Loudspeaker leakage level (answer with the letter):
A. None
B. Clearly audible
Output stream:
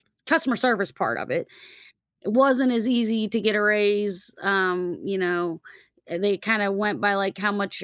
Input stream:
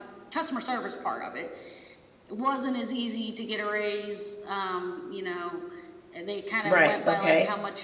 B